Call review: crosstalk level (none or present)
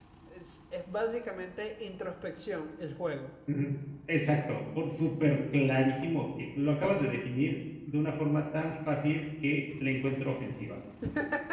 none